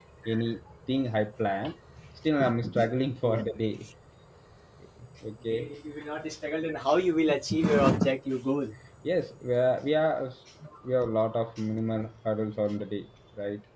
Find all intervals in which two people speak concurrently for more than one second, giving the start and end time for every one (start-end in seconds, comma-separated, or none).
none